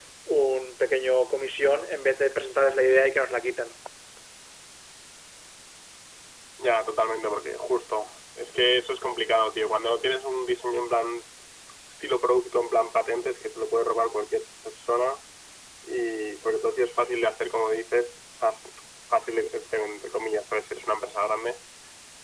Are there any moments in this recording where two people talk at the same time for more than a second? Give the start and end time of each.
none

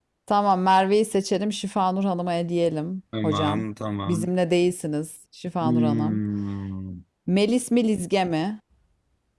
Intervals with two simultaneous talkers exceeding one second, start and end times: none

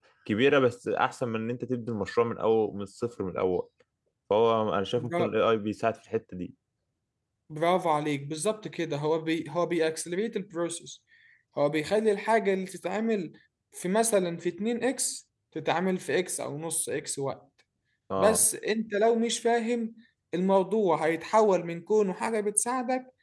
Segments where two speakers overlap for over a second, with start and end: none

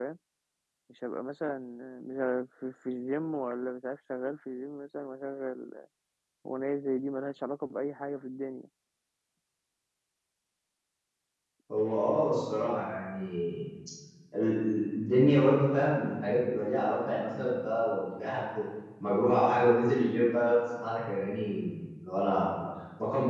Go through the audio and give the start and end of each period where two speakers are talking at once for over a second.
none

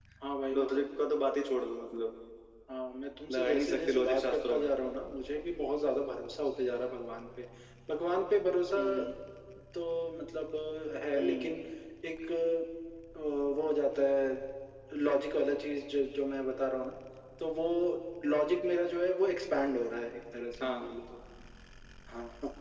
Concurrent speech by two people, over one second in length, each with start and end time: 3.3-4.7

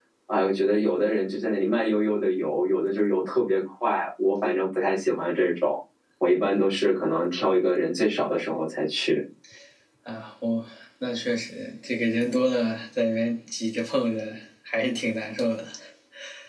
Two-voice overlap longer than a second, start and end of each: none

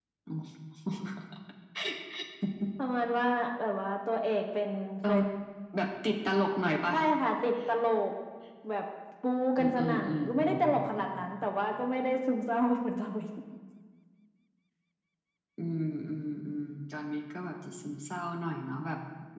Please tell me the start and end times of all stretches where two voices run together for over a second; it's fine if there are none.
9.6-11.1

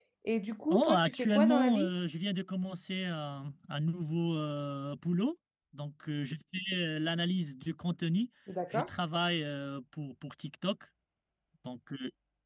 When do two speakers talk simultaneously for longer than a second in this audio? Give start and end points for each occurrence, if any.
0.7-1.9

